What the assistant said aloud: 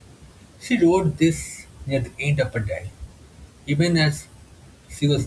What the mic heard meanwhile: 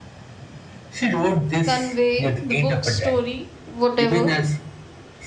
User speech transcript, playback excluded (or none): convey the book story, whatever